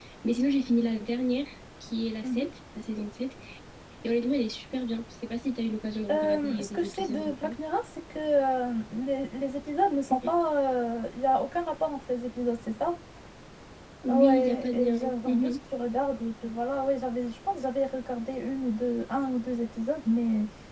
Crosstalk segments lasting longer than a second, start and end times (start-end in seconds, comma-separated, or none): 6.1-7.5, 14.1-15.6